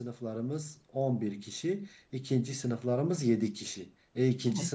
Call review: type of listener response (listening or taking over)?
listening